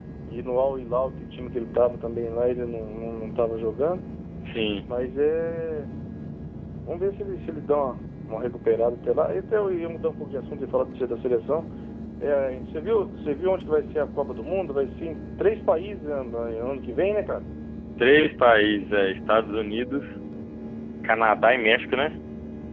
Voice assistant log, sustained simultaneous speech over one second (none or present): none